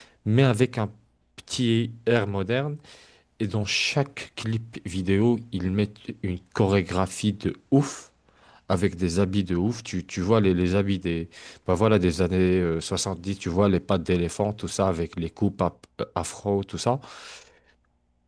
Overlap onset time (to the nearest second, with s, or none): none